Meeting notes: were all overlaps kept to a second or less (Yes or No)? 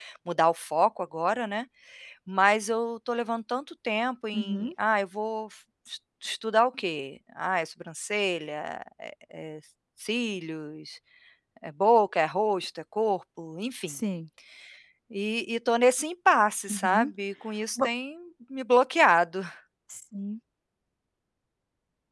Yes